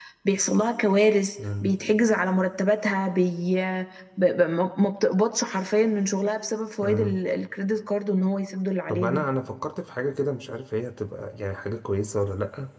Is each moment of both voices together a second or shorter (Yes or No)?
Yes